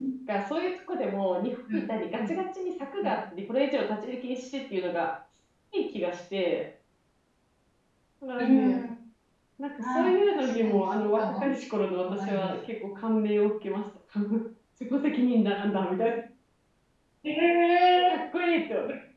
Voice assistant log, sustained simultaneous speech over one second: present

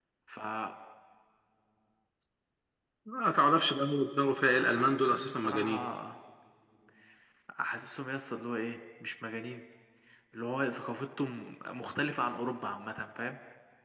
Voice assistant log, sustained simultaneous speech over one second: present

